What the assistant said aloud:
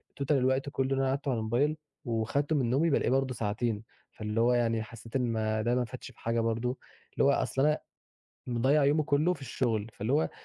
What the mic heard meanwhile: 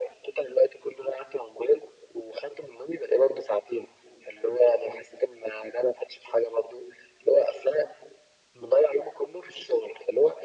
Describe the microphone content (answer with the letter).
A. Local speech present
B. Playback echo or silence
B